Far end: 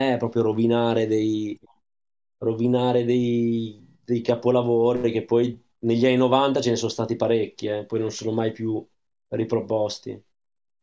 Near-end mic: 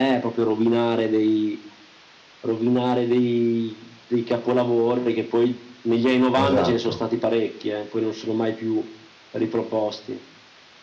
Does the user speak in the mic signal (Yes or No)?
Yes